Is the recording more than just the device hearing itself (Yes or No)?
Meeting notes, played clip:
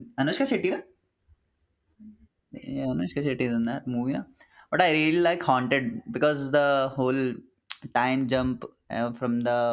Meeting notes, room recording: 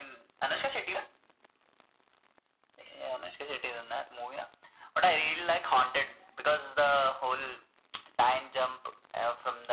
No